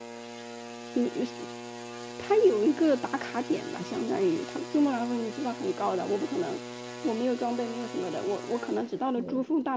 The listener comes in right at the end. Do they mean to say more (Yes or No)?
No